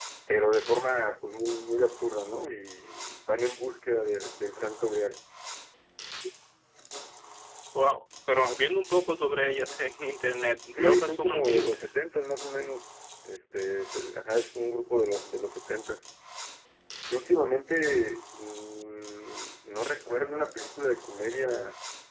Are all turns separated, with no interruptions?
No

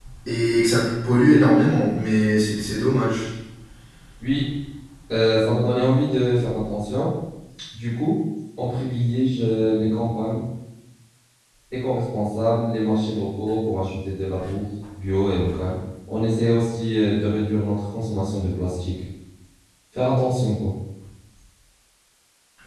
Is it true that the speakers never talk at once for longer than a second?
Yes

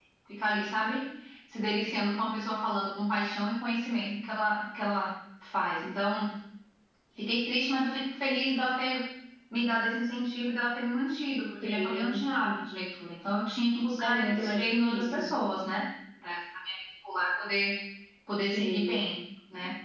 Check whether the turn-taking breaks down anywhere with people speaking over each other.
Yes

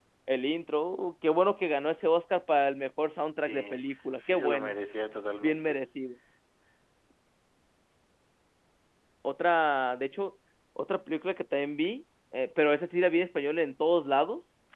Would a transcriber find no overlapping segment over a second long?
Yes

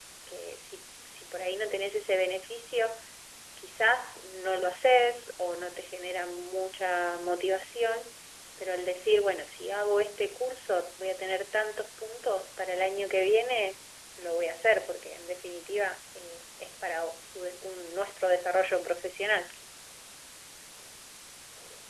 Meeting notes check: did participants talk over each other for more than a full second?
No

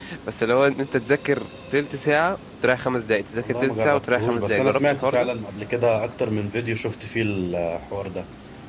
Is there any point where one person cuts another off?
Yes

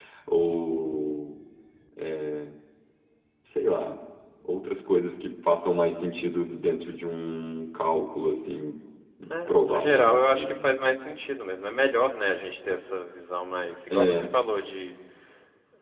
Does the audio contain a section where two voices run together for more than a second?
Yes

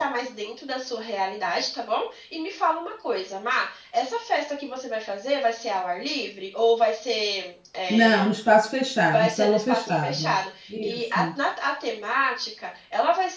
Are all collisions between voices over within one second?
No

